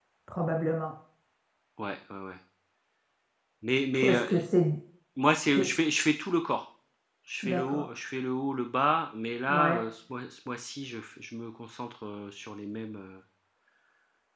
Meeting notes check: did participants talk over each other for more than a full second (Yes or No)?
No